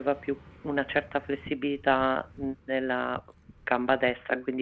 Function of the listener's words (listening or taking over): taking over